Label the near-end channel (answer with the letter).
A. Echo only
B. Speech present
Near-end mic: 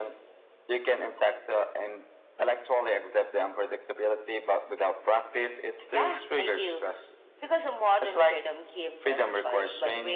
A